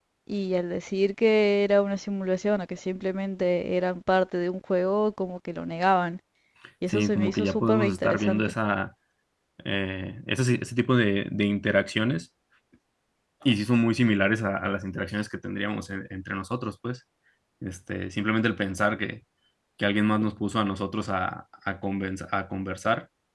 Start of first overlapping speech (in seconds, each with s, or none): 6.9 s